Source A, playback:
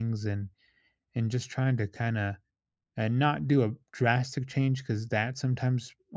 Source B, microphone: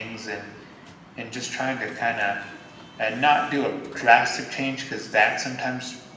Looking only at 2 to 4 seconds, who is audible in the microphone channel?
echo only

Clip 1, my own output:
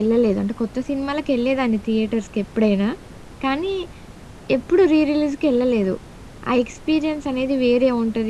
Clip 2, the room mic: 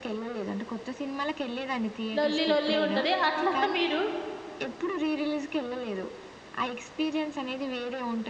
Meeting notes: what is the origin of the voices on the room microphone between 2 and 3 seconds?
both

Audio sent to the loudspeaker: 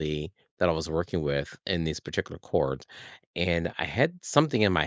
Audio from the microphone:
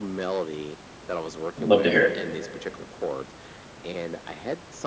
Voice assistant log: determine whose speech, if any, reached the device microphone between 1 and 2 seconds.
both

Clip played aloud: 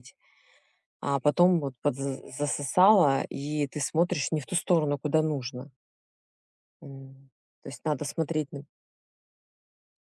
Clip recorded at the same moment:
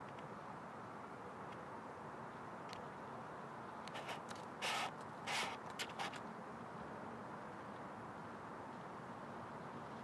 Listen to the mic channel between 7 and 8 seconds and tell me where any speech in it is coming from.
neither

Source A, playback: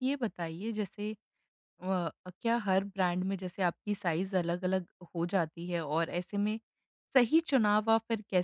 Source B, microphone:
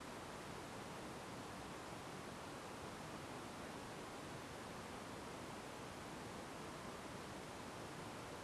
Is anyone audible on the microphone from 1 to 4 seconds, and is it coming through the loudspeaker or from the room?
neither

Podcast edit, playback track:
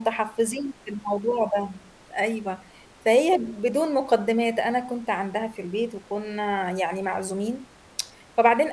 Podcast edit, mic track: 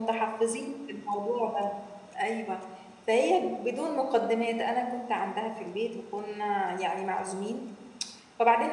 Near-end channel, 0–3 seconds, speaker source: echo only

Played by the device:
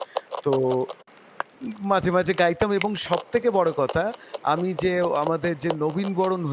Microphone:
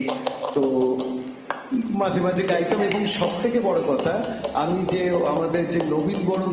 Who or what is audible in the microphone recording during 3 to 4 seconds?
both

